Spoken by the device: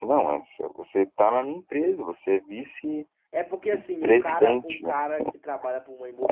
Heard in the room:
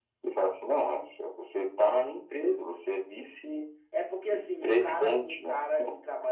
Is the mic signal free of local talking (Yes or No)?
Yes